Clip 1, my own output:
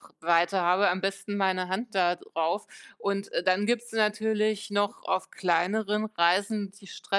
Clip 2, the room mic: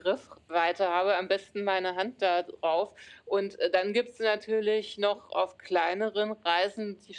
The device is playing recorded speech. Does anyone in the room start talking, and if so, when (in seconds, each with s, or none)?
none